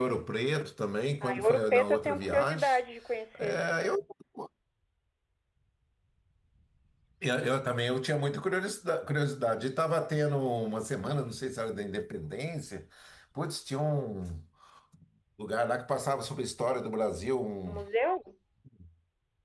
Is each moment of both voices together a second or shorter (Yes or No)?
No